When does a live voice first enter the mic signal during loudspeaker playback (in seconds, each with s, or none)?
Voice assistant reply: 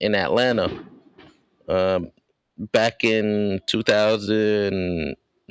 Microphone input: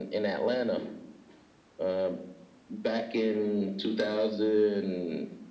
none